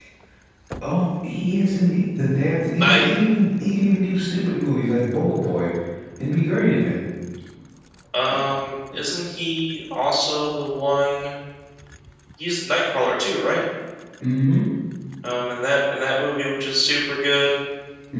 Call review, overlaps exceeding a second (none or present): none